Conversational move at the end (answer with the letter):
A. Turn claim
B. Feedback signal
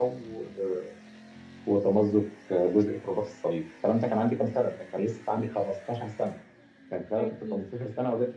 B